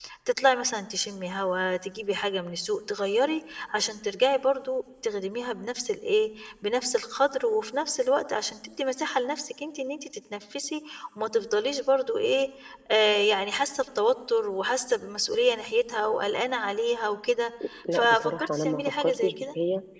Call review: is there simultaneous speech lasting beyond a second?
Yes, from 17.9 s

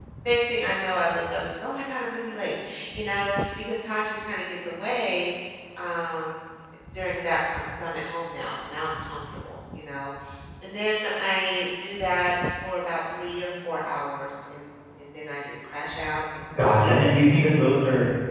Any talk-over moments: Yes, from 16.5 s

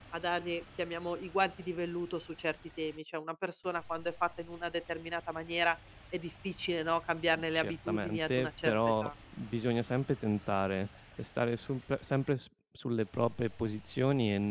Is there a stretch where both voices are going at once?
Yes, from 7.6 s

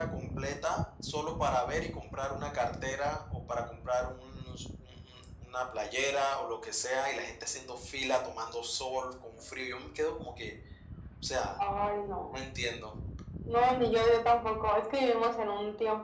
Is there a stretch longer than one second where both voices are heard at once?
No

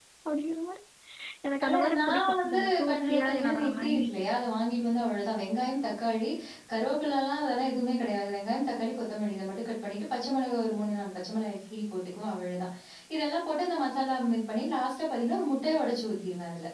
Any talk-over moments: Yes, from 1.6 s

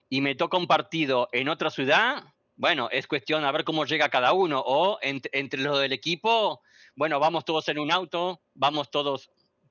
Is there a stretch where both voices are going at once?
No

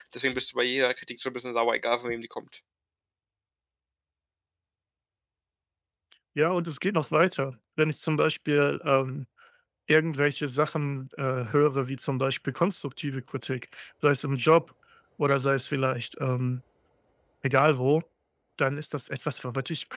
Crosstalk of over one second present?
No

